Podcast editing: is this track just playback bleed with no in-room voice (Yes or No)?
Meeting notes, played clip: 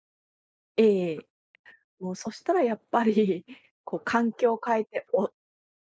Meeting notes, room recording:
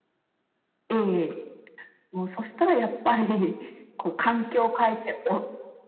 Yes